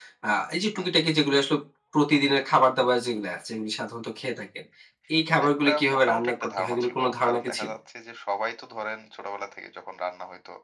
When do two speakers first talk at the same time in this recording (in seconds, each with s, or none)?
5.5 s